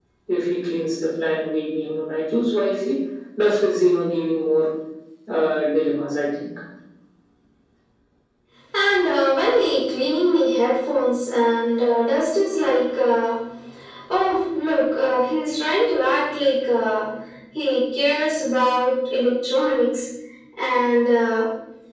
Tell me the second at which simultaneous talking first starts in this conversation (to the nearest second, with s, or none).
none